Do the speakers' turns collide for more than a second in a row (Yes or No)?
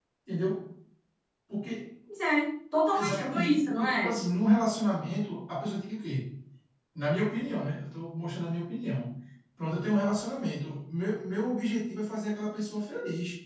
Yes